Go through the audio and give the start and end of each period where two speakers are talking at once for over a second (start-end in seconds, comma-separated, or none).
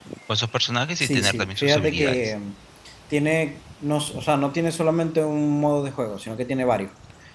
1.0-2.3